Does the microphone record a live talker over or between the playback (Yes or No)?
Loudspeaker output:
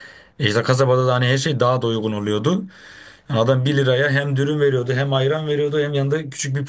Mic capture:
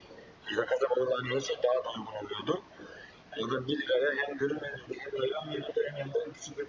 No